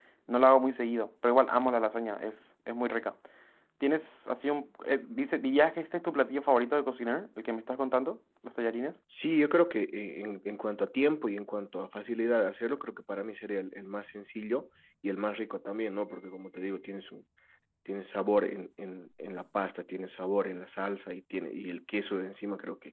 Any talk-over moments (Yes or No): No